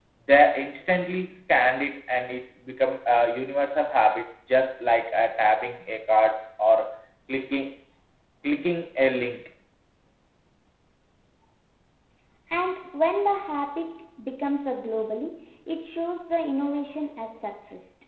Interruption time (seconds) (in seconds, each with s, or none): none